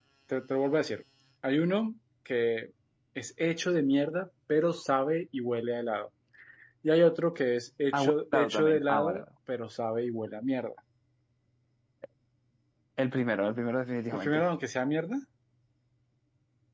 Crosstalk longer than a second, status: present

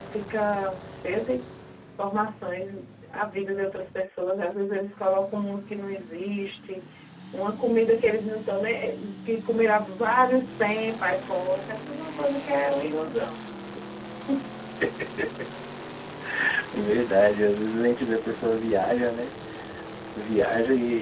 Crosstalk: none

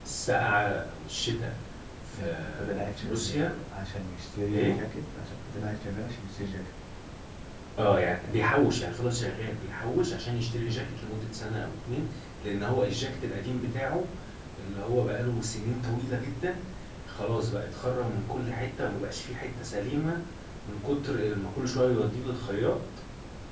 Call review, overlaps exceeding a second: present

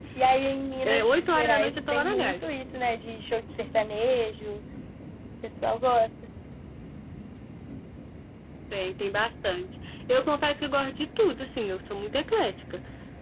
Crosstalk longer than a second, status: present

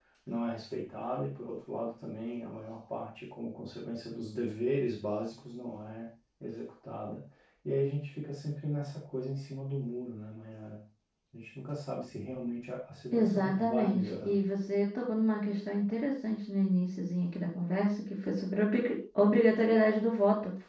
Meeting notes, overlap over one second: present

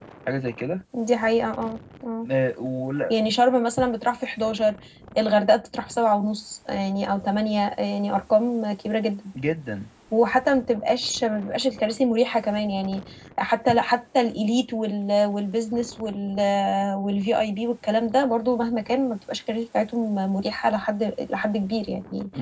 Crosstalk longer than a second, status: none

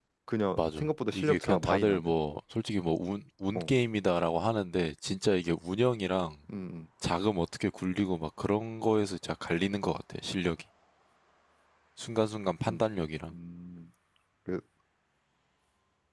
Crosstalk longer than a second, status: present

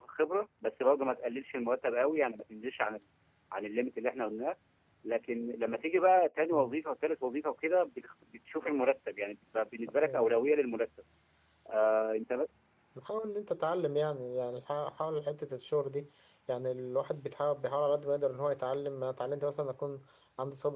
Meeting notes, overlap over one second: none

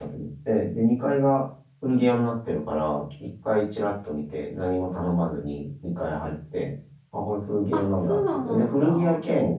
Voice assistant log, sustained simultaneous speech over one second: present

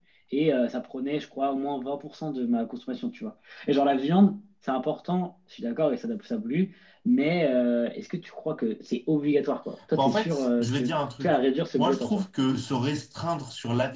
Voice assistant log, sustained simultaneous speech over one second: present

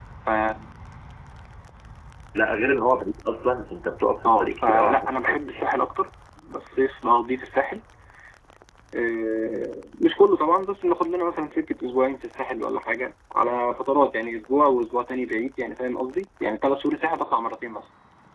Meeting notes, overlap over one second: present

